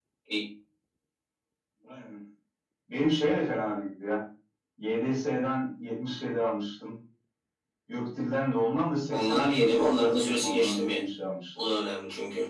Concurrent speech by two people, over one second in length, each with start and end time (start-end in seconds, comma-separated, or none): 9.1-11.0